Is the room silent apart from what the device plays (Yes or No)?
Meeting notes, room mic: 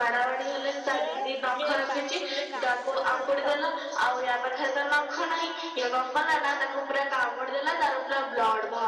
No